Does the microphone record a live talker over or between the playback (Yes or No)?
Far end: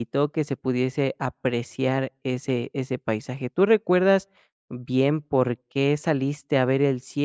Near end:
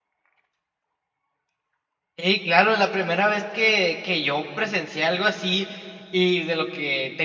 Yes